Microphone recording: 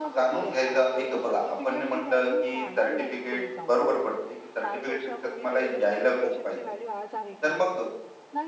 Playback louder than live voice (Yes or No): No